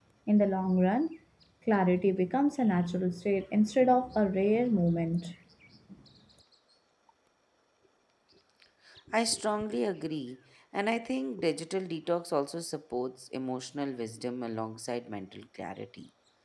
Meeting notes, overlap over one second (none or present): none